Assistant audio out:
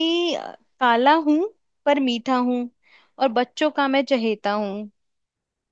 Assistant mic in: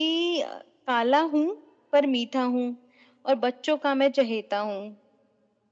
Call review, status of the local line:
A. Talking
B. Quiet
B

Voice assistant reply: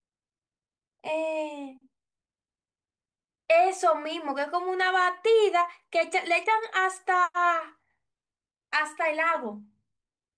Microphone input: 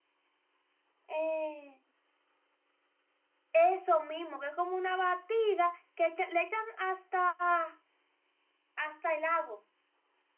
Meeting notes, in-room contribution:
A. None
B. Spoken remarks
A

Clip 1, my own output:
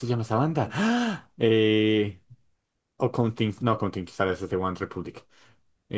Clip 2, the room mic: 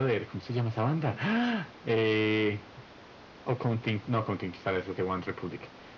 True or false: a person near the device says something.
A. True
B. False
B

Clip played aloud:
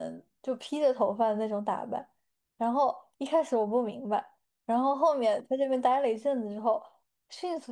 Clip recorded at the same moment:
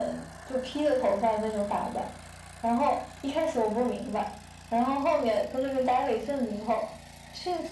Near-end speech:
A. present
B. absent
B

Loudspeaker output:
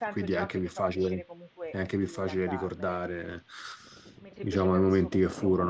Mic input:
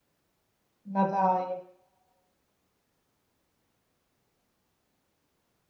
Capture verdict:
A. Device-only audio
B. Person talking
B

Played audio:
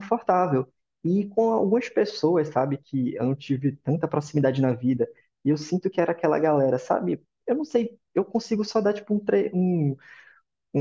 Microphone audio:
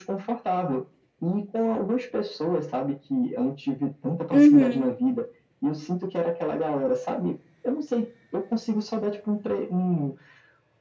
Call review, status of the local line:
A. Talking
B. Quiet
A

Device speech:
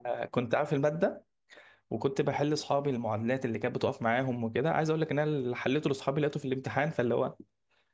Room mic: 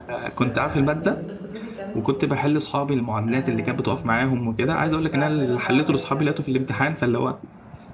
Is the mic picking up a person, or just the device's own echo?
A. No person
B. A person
B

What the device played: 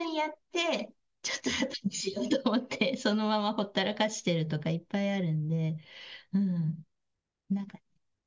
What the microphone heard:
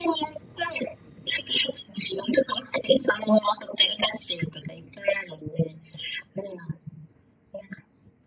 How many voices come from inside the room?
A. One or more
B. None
B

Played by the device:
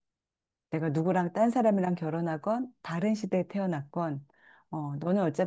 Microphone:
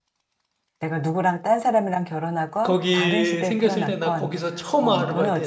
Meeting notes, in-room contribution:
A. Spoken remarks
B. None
A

